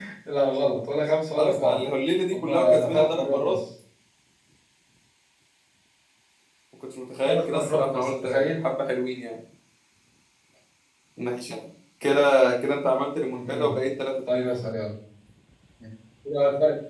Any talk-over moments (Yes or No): Yes